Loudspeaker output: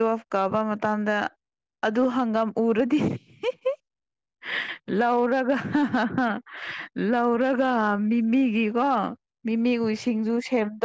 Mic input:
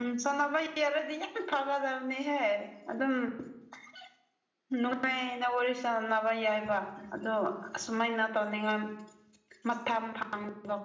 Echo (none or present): none